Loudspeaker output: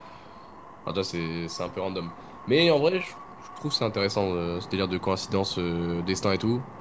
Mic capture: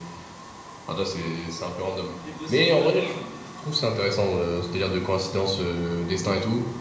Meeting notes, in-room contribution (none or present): present